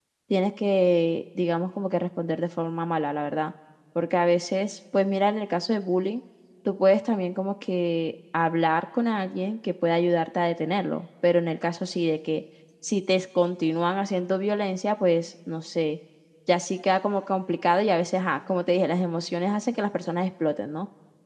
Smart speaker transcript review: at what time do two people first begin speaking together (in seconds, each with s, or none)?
none